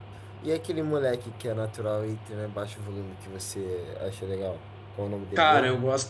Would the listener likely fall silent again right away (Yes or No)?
No